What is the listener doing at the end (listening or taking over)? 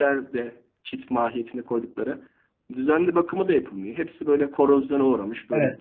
taking over